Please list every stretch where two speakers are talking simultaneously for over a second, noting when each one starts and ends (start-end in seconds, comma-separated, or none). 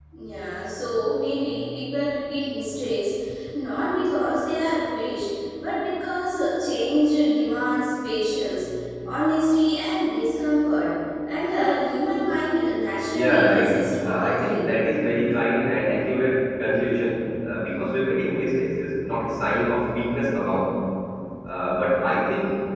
13.1-14.7